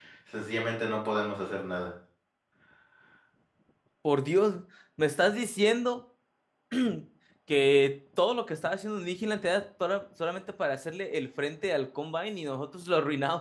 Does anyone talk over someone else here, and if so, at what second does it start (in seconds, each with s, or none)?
none